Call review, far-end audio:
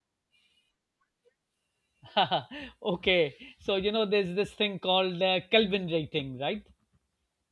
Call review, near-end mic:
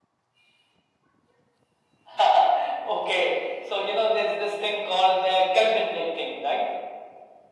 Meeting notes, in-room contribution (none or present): none